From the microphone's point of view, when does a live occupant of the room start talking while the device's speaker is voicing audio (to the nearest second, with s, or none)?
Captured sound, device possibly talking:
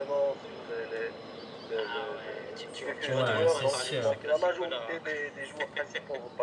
3 s